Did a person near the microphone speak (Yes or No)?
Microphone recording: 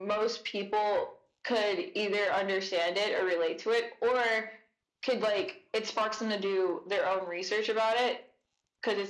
No